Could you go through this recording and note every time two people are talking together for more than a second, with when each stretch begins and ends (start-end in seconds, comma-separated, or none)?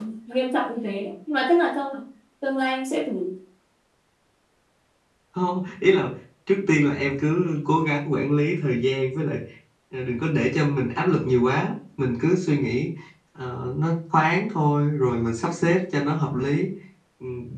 none